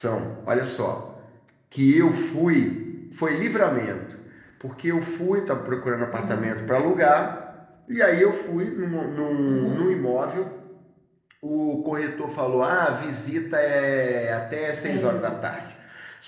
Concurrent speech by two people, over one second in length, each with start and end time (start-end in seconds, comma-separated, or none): none